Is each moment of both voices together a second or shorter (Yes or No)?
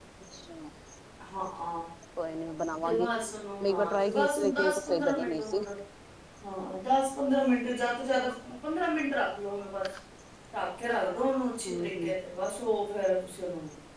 No